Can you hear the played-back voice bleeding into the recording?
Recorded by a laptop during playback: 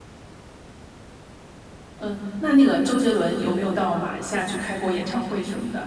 No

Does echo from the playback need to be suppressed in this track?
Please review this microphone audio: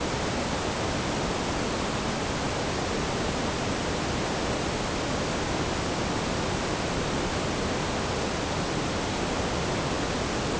No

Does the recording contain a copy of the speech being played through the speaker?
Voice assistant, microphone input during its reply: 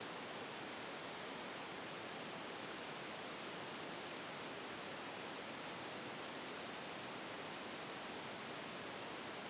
No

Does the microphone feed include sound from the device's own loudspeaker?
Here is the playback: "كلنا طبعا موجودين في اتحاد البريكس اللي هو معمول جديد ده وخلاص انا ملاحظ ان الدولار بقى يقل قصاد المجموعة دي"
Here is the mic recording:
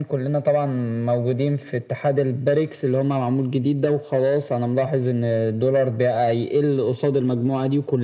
Yes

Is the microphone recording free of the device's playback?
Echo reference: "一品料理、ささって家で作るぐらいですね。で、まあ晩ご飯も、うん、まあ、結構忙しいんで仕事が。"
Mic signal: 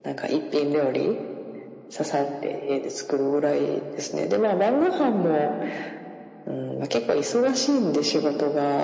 No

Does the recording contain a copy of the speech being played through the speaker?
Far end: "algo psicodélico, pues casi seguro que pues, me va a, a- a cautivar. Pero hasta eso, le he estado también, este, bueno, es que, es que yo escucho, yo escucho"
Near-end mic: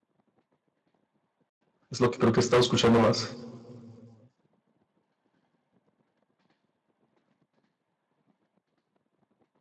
No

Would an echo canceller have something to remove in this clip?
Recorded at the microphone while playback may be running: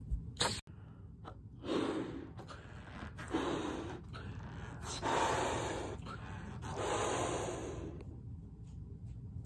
No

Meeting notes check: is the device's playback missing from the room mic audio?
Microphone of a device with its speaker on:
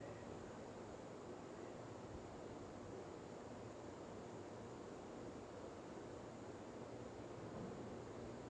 Yes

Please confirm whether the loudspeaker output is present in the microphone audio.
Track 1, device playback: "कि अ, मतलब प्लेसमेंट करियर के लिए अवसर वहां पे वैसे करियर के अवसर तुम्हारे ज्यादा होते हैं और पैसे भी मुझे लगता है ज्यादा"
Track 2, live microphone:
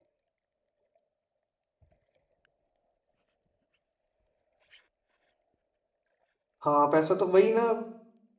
No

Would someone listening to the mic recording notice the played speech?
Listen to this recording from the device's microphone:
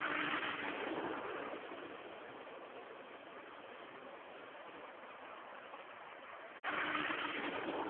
No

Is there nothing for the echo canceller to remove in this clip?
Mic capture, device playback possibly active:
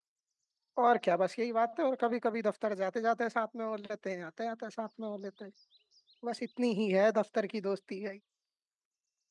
Yes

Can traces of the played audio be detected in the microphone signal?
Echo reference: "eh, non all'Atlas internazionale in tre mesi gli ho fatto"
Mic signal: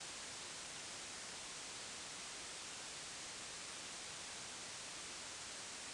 No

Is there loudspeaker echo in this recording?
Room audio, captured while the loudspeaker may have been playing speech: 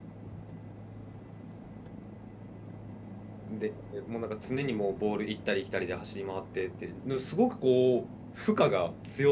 No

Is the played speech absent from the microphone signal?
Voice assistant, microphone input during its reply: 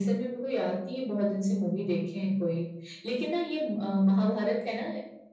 No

